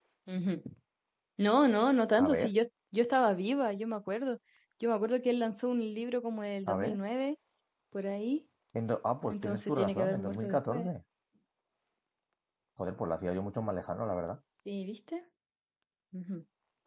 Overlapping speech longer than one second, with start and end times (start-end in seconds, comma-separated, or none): 9.2-10.9